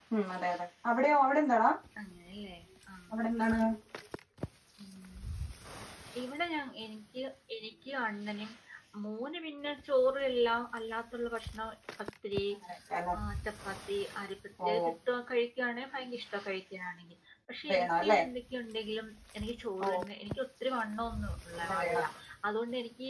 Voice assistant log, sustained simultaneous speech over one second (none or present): none